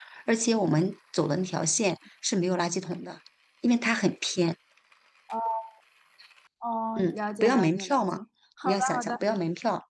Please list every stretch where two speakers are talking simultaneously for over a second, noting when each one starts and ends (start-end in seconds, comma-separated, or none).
7.0-8.2